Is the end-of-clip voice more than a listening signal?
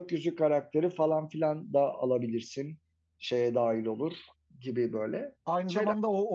Yes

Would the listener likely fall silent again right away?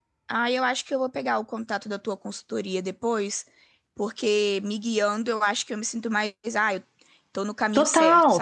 No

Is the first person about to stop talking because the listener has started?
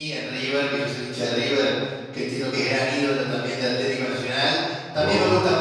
No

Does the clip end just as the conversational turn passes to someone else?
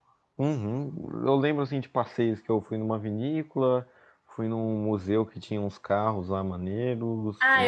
Yes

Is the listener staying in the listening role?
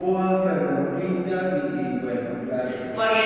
No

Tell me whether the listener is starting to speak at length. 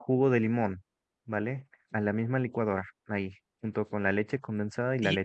Yes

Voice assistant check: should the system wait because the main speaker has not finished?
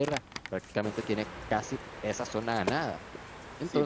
No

